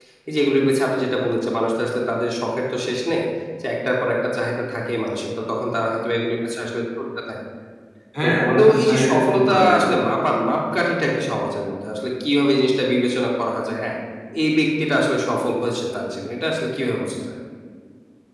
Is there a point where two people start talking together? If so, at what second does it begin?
8.2 s

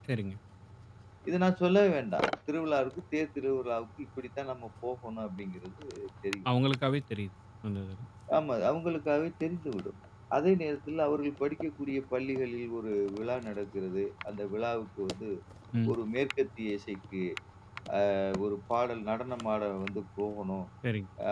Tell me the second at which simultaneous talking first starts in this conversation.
none

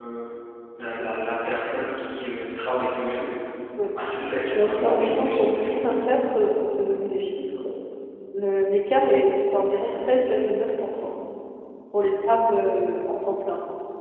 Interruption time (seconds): 4.5 s

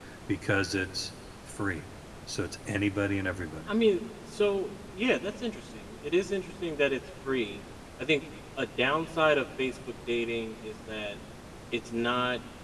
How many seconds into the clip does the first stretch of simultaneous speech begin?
none

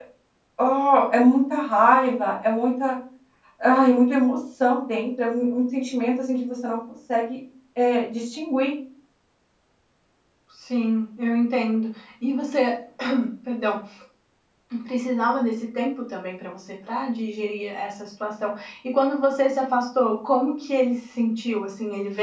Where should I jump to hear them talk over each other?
none

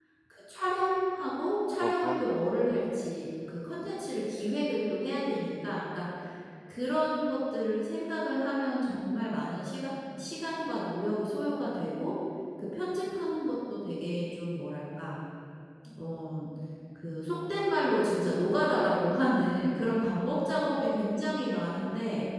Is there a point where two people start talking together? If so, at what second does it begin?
1.8 s

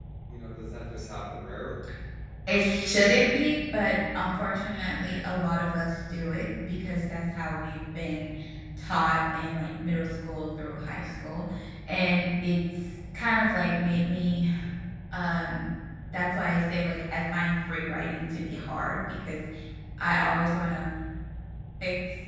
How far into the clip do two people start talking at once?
none

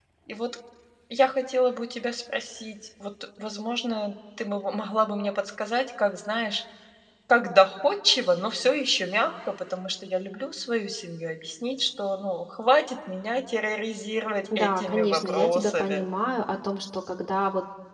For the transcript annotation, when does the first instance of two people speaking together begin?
14.4 s

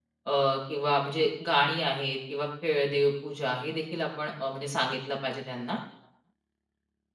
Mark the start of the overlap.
none

